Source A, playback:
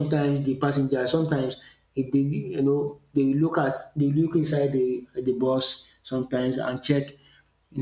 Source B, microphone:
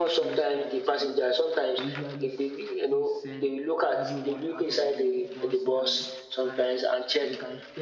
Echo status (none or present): present